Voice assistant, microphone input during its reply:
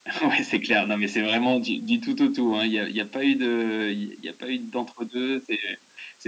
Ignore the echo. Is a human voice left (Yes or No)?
No